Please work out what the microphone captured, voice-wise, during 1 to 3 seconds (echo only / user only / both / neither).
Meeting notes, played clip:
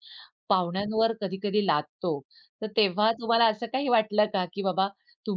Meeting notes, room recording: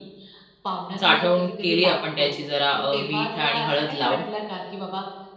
both